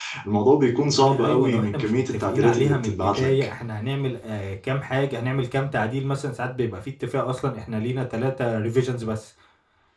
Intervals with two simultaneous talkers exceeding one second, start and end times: 0.9-3.3

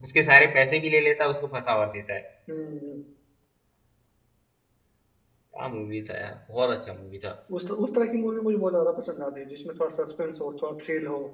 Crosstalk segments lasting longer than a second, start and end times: none

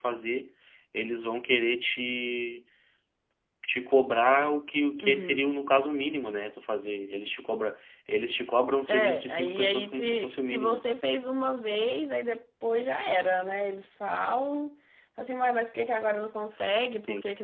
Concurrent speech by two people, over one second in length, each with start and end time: 8.9-10.8

